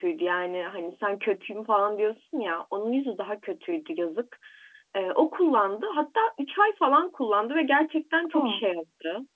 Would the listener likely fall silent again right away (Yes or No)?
Yes